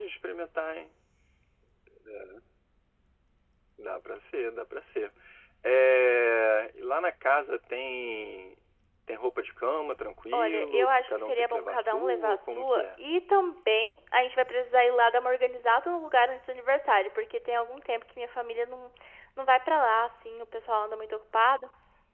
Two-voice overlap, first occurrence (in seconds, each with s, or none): 10.3 s